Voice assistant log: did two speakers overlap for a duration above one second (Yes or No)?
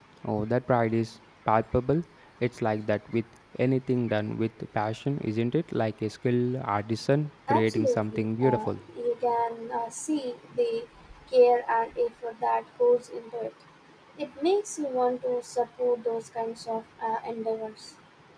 Yes